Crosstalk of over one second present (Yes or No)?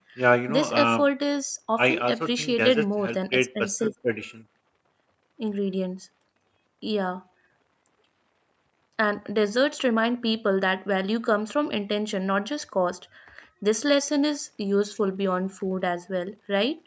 Yes